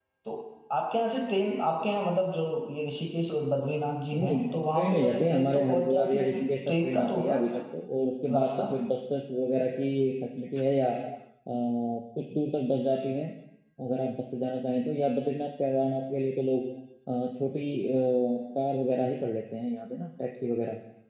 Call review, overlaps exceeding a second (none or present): present